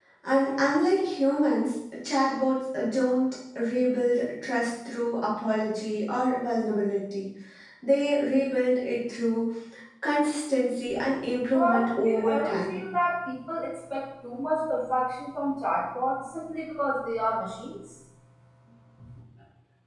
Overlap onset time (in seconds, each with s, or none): 11.5 s